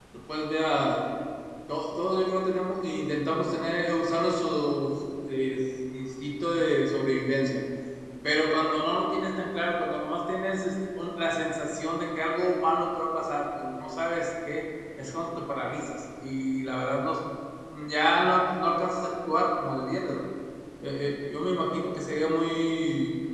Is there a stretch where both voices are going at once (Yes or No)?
No